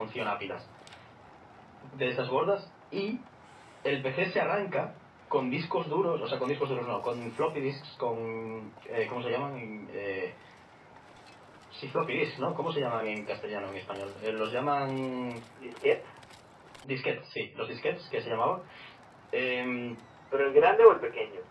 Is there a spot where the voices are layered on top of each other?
No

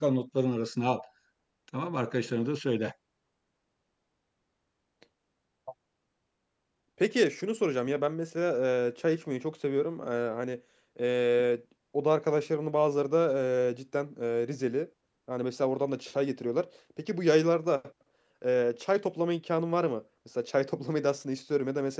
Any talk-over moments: No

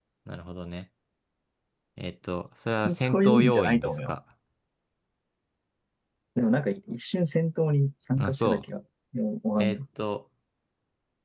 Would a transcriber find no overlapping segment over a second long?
No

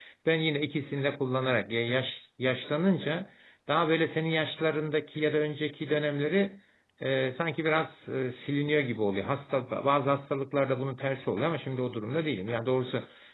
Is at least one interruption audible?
No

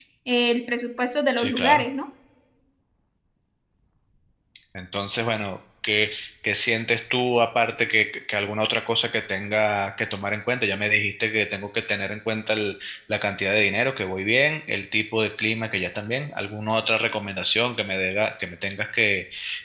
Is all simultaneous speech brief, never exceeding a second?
Yes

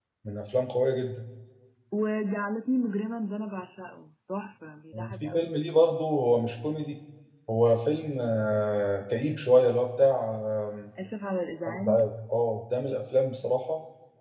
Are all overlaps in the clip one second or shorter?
Yes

